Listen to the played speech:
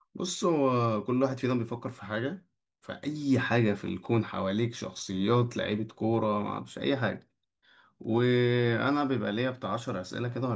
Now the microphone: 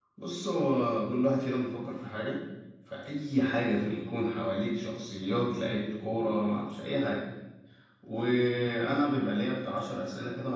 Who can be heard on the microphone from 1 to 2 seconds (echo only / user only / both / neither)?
echo only